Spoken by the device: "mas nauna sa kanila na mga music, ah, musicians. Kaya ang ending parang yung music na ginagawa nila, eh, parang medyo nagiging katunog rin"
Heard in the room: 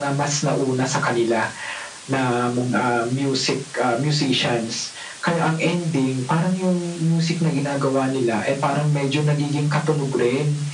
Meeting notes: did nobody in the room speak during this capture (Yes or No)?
Yes